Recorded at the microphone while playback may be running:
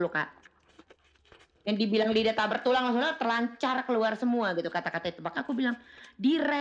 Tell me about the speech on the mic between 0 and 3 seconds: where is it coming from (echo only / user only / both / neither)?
echo only